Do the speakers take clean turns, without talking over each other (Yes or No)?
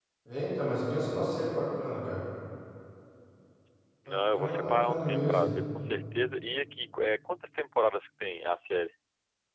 No